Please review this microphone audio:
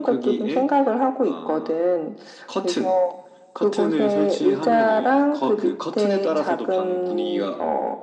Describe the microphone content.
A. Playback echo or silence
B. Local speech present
A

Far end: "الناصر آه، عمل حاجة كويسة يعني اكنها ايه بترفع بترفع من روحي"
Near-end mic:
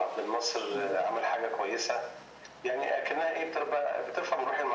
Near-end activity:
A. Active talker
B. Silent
A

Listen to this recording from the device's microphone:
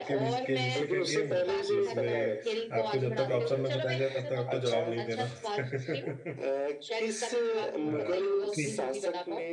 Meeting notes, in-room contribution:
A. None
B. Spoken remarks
B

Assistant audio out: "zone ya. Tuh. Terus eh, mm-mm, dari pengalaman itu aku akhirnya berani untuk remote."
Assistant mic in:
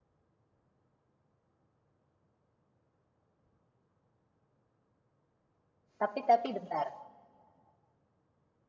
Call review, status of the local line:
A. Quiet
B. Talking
B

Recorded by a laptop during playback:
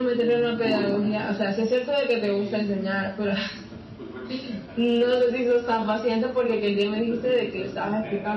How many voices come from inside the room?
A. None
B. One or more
B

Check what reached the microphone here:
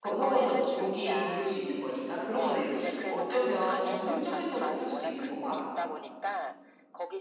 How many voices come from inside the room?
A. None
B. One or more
B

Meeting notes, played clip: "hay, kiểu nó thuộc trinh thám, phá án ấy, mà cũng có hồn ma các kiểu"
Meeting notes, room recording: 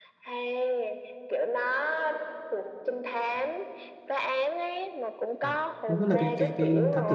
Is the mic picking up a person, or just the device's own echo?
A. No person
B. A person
B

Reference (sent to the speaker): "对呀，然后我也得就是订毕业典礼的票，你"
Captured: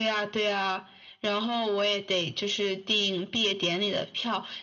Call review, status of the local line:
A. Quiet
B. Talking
A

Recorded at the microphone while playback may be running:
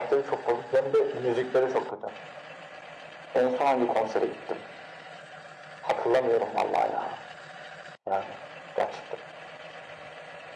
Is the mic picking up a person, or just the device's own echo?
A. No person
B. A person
A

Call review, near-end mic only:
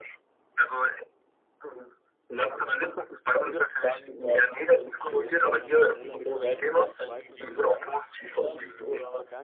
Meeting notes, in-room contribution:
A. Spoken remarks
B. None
A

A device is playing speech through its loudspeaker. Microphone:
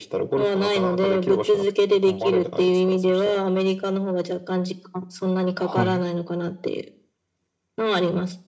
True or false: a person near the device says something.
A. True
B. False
A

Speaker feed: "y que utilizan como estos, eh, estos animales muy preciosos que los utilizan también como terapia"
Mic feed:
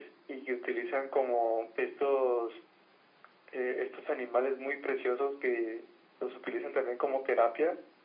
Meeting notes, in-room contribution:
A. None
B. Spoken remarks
A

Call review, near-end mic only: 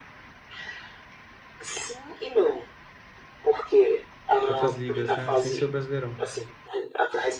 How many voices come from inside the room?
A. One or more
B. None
A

